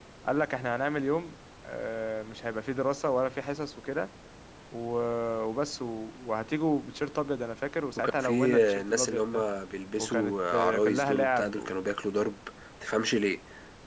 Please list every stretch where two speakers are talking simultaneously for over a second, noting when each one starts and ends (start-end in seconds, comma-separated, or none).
8.0-9.4, 10.0-11.7